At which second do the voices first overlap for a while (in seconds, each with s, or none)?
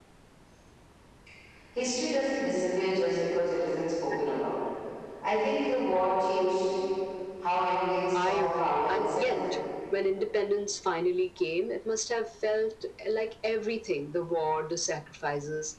8.1 s